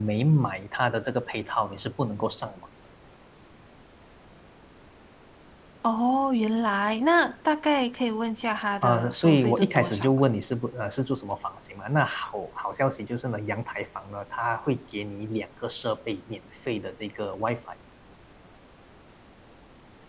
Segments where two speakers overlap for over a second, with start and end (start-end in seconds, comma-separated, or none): 8.8-10.2